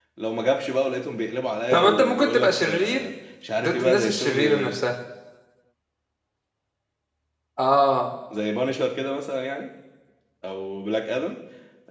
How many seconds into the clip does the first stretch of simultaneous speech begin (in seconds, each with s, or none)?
1.7 s